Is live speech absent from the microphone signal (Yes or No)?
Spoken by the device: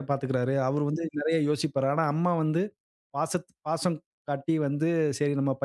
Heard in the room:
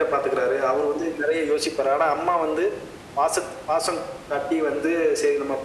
Yes